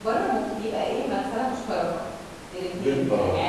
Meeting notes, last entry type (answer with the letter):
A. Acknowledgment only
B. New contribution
A